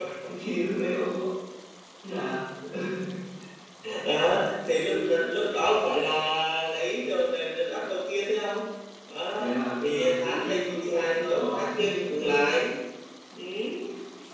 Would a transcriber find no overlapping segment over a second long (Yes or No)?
No